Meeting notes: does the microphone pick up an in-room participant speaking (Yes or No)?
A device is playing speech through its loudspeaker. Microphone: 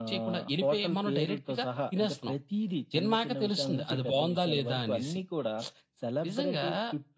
No